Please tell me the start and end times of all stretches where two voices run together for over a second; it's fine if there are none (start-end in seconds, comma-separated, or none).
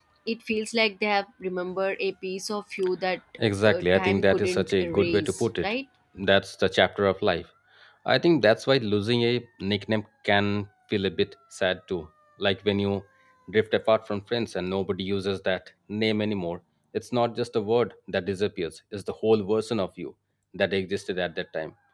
3.6-5.7